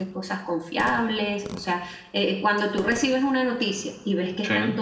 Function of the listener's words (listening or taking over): listening